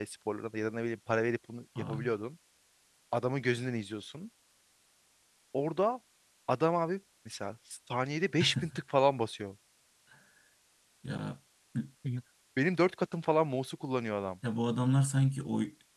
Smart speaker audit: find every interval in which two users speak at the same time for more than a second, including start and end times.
none

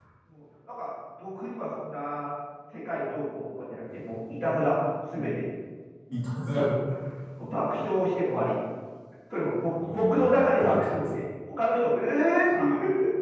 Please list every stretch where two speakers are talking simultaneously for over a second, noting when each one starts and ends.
9.8-11.0

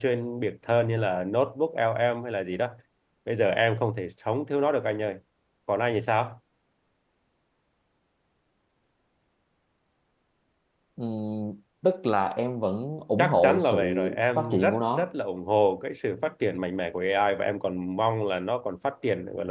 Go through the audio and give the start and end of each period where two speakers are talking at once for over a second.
13.2-15.1

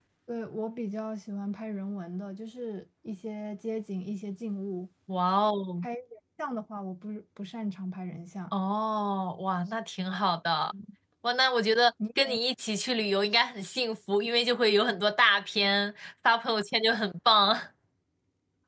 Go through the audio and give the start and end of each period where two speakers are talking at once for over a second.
none

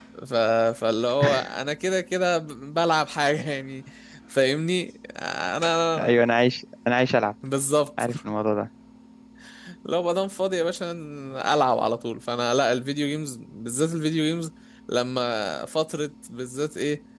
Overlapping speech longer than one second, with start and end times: none

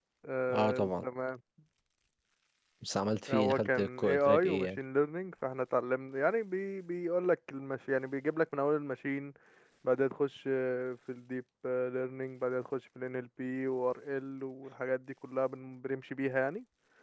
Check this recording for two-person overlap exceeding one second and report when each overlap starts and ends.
3.3-4.8

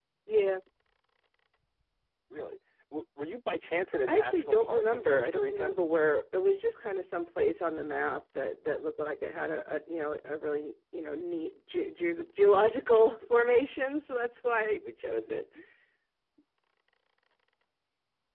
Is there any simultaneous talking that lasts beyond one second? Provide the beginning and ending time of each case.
4.1-5.7

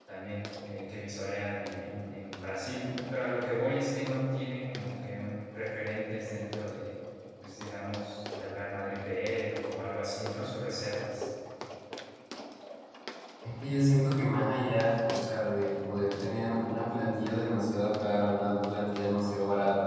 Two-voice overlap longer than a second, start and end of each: none

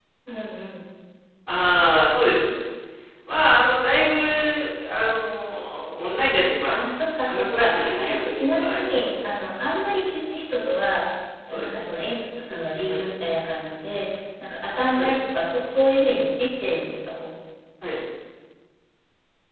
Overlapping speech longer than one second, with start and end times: 7.2-9.1

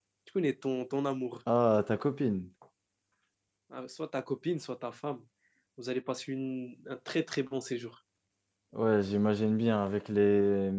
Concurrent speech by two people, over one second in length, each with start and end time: none

